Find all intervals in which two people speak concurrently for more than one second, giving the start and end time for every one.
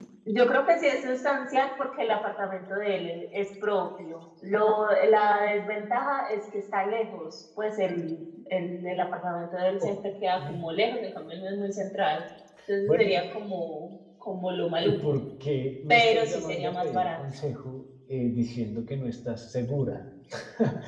15.9-17.2

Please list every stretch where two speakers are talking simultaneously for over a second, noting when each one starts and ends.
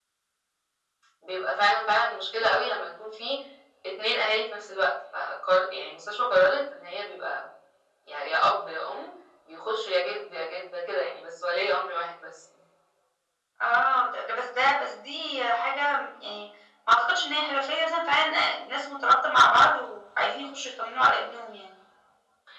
none

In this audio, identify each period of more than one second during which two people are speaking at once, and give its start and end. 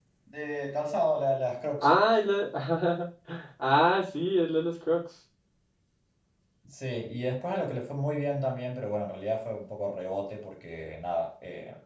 none

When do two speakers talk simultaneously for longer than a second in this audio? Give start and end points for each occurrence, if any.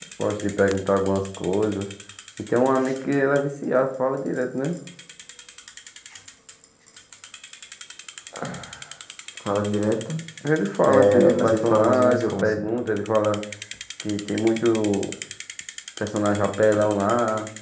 10.9-12.6

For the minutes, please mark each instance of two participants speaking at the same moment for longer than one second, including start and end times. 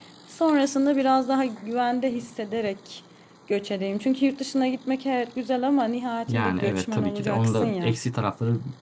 6.3-7.9

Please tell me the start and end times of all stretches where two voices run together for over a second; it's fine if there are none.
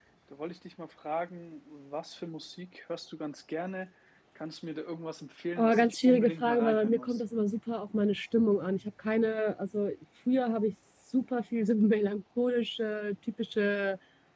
5.5-7.2

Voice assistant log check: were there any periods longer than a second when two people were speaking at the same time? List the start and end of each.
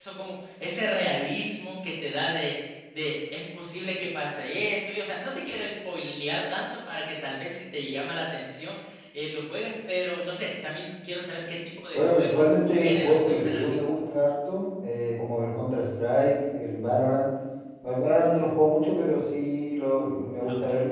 11.9-13.8

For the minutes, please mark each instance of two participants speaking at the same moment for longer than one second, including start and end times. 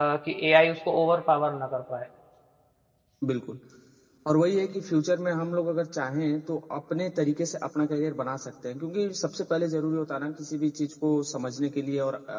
none

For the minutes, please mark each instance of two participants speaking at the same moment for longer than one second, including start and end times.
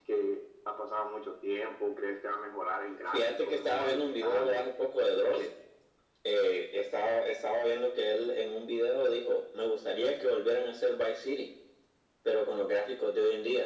3.0-4.7

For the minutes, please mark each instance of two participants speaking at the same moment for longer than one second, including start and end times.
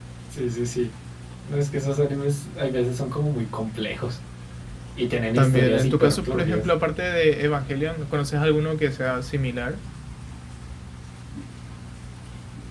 5.4-6.7

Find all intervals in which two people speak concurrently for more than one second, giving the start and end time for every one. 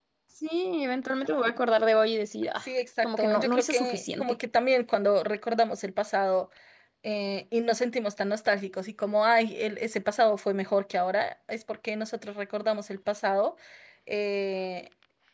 3.0-4.3

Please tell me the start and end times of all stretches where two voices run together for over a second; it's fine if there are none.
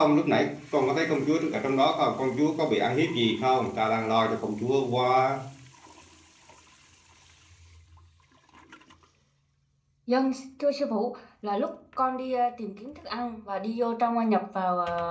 none

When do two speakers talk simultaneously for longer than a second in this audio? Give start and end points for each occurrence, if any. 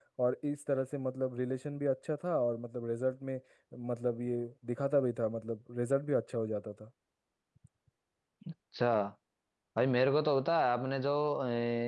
none

